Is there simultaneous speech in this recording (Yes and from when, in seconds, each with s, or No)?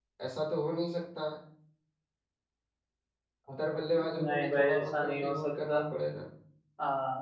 Yes, from 4.0 s